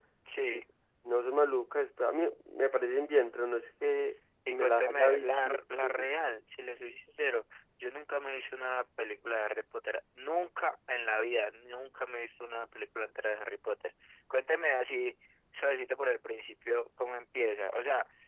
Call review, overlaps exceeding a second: present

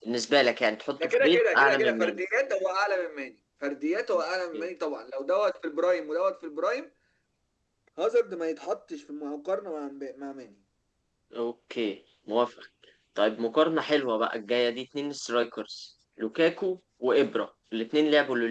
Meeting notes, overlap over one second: present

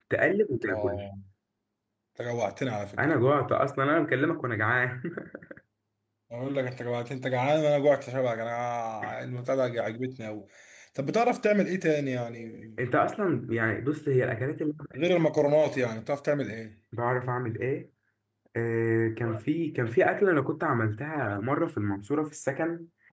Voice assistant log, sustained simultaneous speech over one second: none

